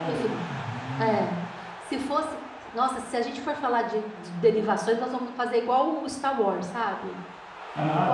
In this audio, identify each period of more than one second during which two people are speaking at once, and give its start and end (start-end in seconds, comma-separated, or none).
none